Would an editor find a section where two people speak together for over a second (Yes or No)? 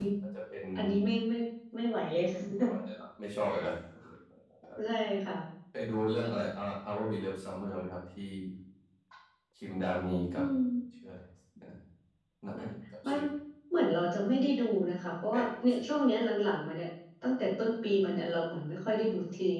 No